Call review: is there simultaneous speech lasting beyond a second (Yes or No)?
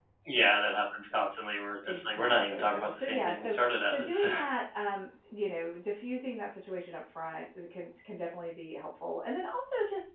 Yes